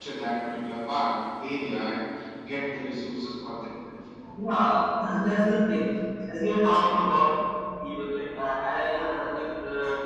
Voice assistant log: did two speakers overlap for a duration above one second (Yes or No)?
No